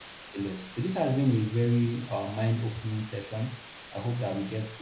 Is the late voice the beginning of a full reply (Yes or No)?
No